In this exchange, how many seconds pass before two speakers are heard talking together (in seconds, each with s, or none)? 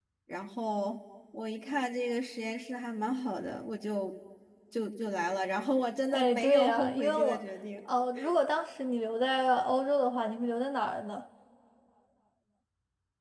6.1 s